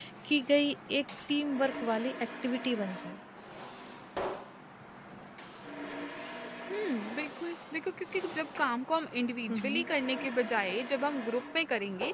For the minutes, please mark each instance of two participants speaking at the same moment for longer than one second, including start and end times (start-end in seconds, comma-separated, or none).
none